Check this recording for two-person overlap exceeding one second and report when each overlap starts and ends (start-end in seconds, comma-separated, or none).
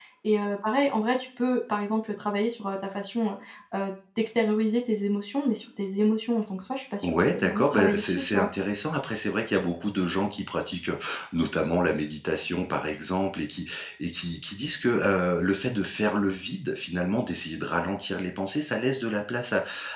7.0-8.5